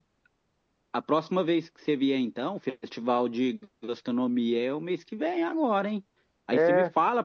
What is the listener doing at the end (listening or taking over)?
listening